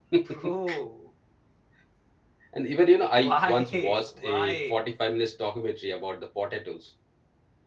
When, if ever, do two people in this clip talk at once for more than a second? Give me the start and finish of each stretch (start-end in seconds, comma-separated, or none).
3.2-4.9